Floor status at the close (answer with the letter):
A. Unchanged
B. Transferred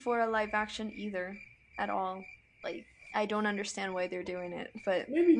B